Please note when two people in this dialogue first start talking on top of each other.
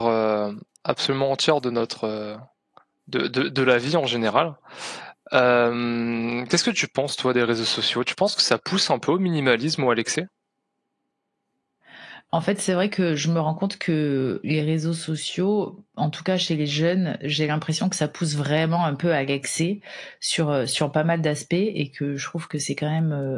none

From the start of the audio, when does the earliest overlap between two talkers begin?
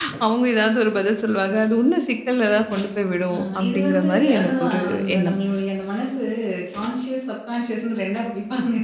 3.3 s

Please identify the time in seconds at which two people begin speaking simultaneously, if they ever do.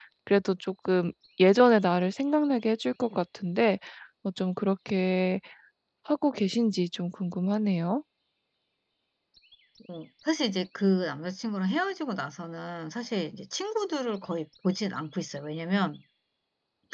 none

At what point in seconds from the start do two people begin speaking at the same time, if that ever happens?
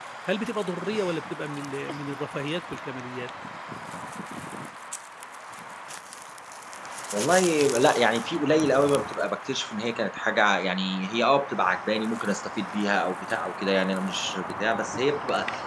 none

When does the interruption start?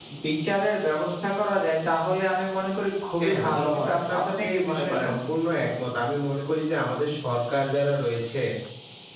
3.2 s

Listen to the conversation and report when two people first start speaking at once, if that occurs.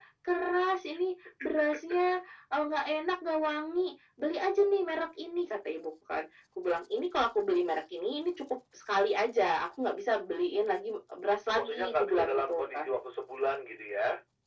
11.5 s

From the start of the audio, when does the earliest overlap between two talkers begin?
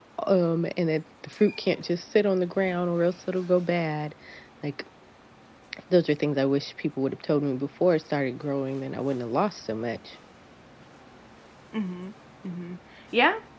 none

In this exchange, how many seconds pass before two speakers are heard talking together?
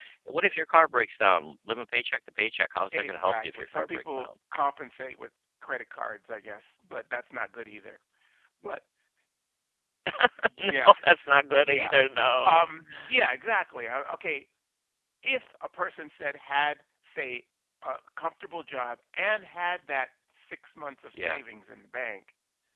2.9 s

